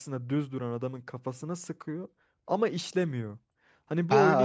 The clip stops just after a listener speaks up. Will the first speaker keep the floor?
No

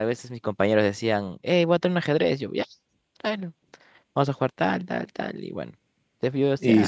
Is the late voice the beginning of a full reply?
Yes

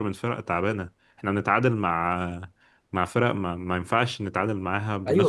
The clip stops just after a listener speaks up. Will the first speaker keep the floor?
No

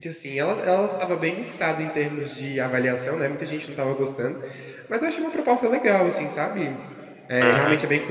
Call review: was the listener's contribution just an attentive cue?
Yes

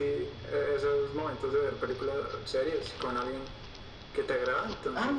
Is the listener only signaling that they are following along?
Yes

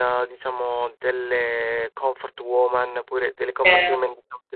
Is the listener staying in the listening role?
Yes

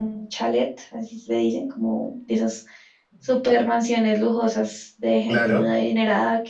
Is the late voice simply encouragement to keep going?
Yes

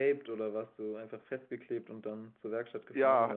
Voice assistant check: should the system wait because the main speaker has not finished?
No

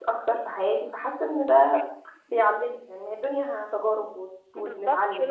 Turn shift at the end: Yes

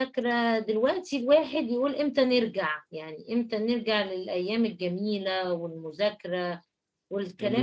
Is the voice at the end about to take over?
Yes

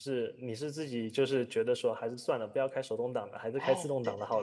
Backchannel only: No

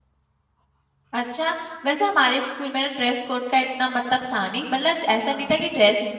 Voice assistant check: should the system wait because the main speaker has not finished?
Yes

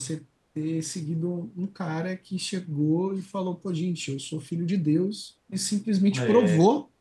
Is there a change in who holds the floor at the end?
No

